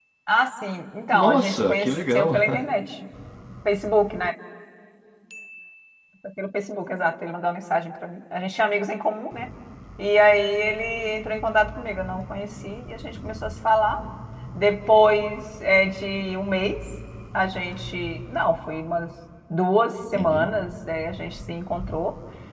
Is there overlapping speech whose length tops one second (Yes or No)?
Yes